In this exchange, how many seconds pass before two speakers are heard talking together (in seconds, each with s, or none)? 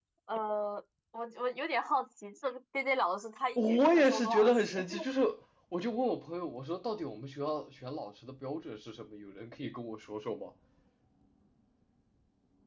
3.6 s